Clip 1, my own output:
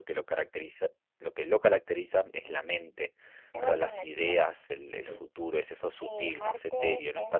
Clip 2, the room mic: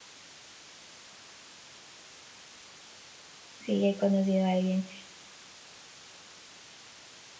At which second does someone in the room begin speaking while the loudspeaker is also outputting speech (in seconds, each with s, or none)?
3.6 s